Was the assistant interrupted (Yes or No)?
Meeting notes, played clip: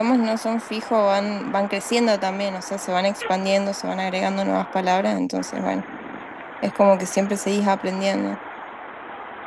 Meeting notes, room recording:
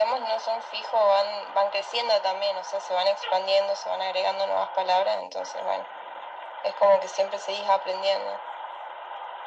No